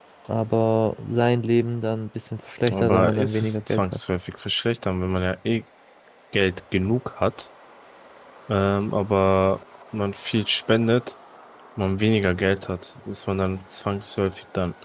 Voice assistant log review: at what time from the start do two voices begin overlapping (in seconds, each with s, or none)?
2.7 s